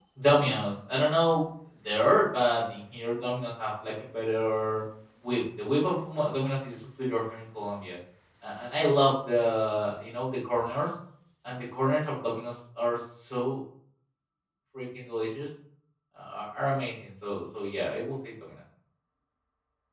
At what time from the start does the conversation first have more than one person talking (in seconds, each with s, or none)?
none